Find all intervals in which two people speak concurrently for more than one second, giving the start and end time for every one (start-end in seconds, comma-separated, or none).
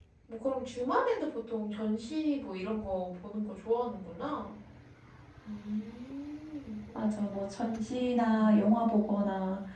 none